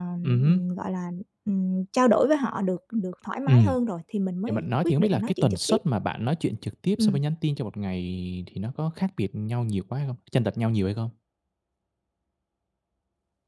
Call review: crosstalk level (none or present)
present